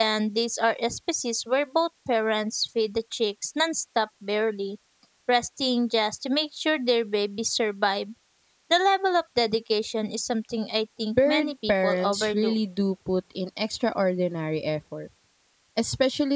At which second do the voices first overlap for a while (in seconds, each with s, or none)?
11.1 s